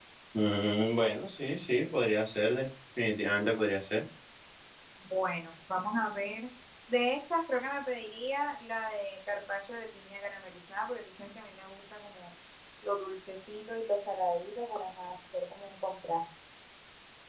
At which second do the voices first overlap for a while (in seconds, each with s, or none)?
none